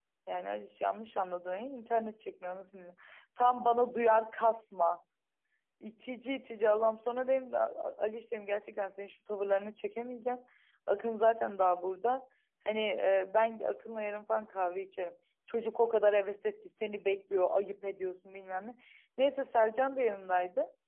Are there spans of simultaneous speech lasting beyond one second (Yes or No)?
No